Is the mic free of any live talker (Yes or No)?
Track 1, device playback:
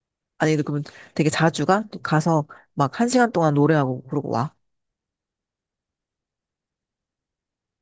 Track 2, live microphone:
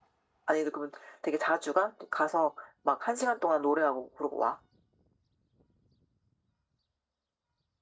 Yes